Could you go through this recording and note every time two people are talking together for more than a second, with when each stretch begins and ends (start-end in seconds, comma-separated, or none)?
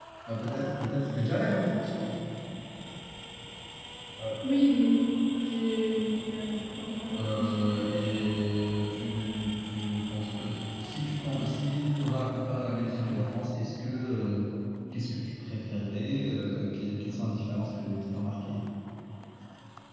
none